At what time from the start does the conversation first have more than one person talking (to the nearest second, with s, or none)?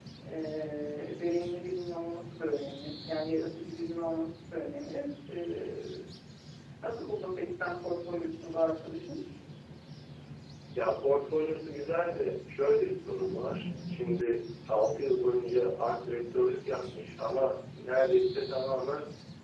none